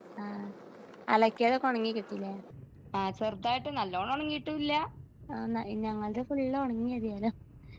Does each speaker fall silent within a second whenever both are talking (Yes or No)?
Yes